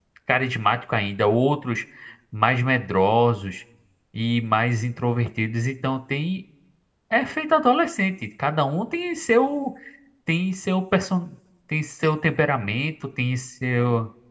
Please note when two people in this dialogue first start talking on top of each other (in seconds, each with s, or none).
none